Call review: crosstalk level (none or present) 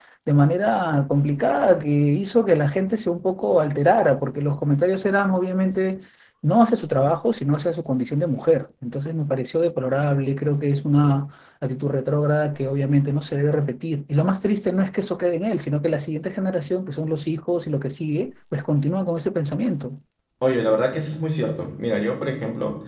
none